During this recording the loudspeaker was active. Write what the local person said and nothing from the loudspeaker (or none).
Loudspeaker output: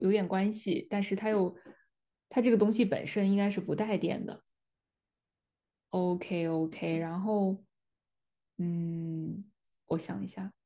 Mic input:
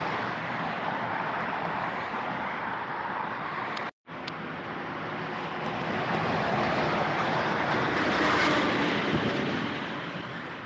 none